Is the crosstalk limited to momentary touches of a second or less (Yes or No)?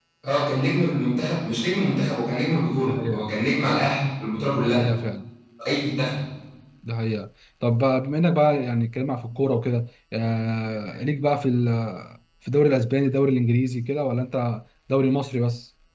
Yes